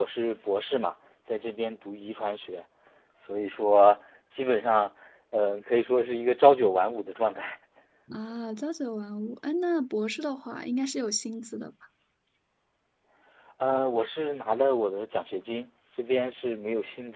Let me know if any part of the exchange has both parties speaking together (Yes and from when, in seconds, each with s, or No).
No